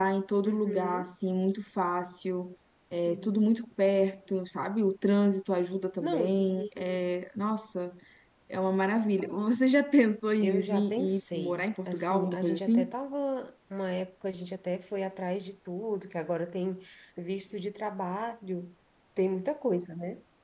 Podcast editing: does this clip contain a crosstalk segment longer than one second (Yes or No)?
Yes